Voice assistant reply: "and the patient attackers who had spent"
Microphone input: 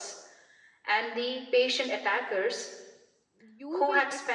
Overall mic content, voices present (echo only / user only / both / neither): both